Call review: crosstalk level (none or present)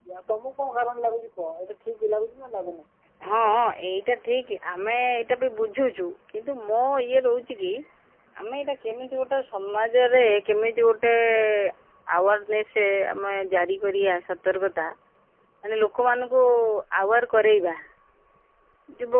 none